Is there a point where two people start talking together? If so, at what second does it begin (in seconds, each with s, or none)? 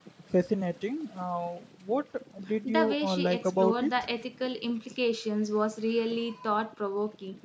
2.6 s